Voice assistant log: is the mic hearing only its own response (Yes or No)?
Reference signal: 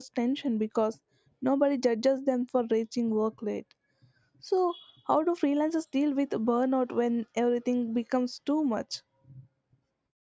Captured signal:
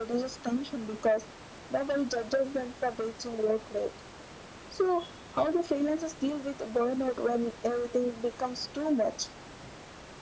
Yes